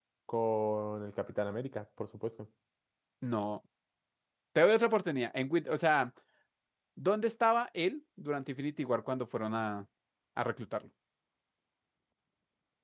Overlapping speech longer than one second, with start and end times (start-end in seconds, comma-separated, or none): none